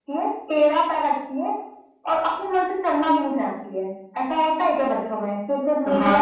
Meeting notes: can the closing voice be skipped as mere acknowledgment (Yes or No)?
No